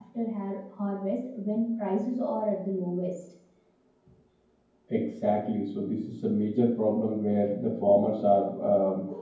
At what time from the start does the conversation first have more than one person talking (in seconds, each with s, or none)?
none